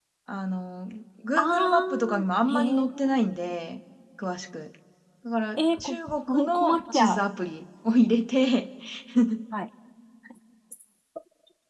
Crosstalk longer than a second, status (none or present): present